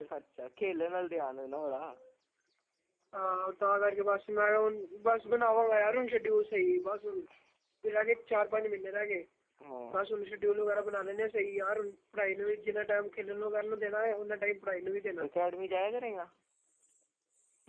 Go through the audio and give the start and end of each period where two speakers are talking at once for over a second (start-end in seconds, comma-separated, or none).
none